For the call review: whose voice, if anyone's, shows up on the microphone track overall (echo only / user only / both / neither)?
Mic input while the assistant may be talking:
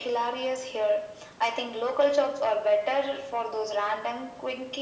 echo only